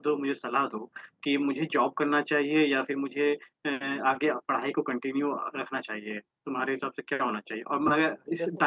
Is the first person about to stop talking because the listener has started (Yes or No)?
No